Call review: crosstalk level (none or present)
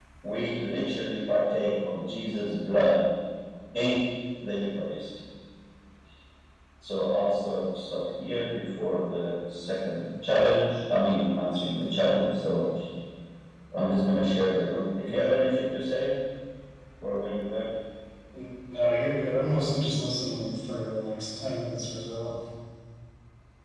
none